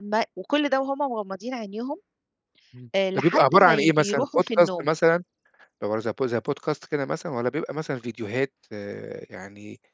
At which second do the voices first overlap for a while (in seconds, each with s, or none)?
3.1 s